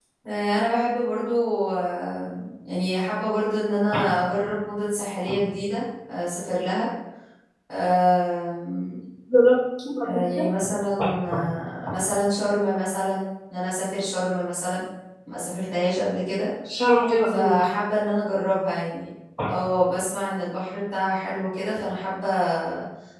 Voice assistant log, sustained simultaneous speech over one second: none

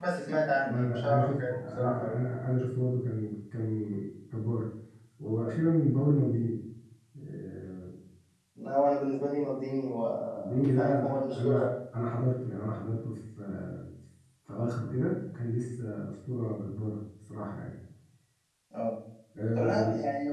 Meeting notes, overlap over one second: present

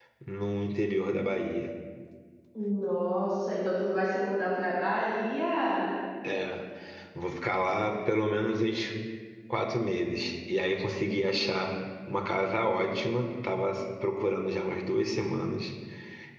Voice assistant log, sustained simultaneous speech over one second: none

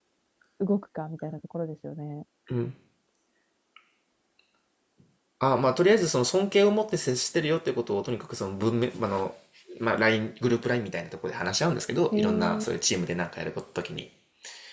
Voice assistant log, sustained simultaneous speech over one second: none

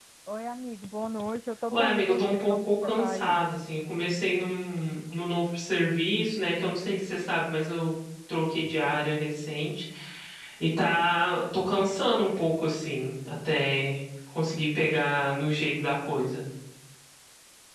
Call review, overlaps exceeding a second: present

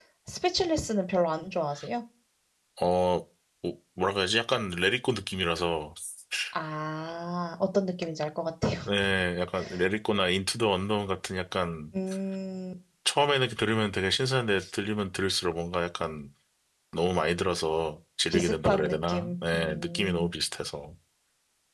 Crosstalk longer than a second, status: present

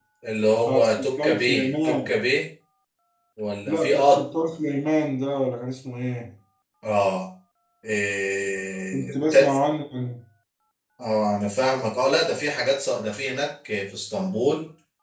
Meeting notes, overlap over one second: present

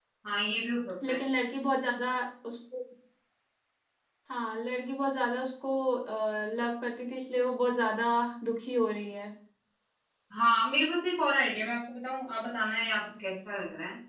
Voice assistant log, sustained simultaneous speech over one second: none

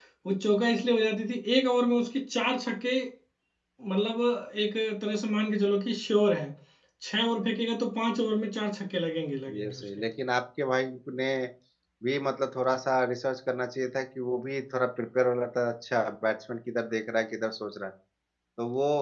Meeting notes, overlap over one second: none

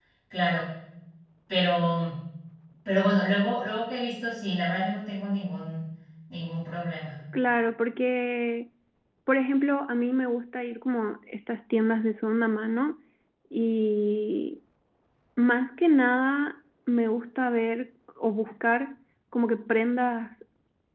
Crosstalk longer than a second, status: none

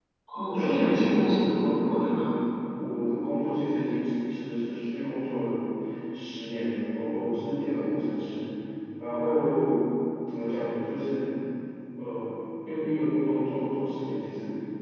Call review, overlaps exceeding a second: present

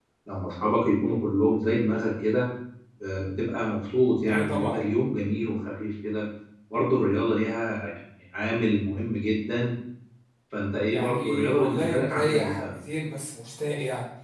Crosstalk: present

